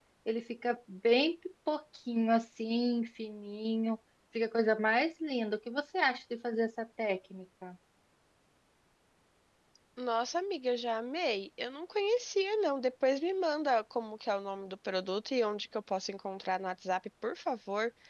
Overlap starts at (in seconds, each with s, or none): none